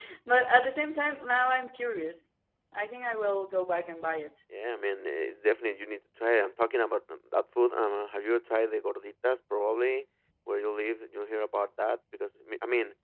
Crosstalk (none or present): none